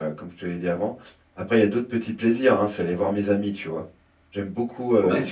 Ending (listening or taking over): listening